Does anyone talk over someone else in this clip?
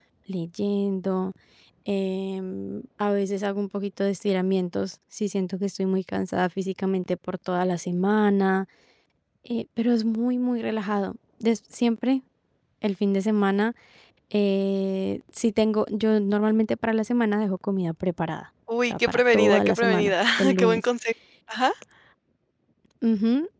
Yes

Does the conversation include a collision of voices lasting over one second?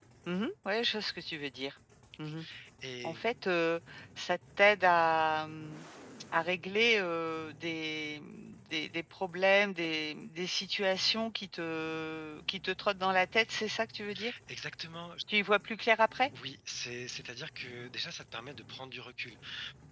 No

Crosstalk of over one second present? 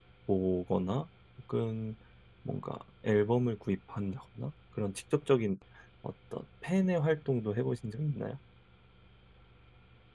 No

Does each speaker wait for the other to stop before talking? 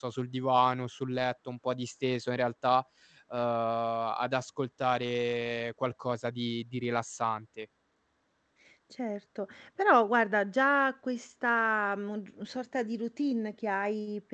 Yes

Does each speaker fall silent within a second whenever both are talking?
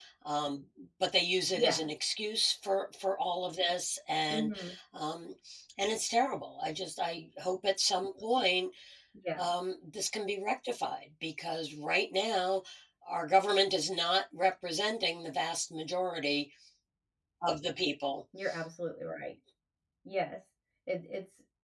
Yes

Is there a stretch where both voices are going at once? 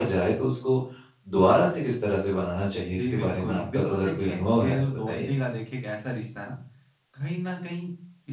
Yes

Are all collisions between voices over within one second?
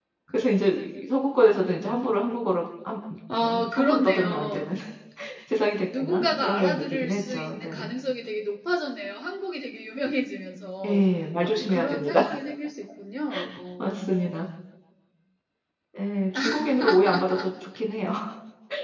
No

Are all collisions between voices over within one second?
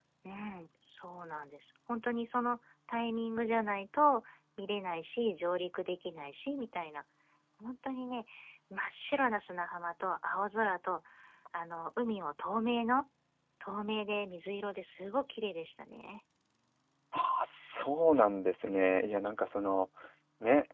Yes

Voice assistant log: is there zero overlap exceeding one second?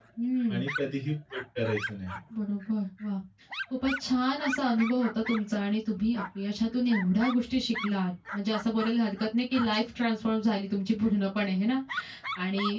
Yes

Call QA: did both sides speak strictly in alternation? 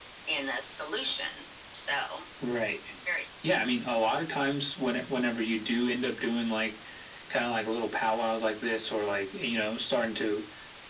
Yes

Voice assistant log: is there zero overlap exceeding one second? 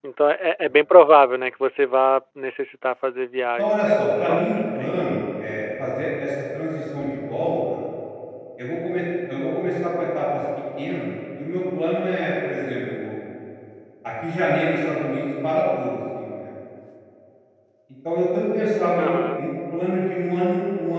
No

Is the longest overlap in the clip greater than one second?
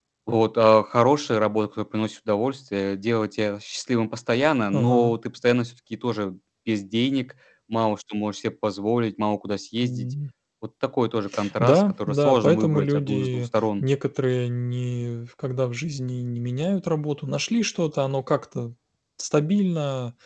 Yes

